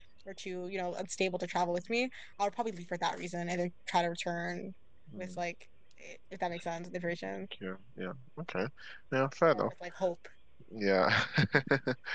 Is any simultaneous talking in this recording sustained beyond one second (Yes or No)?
No